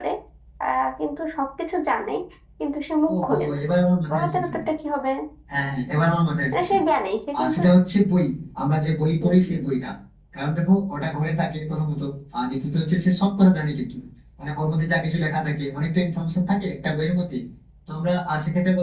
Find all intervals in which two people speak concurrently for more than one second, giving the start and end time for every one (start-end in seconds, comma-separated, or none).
none